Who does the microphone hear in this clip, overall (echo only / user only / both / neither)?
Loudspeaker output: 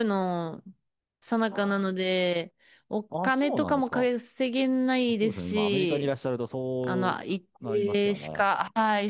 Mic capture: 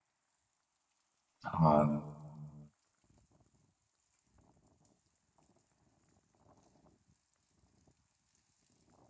user only